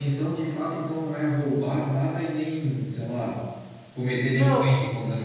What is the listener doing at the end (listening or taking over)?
taking over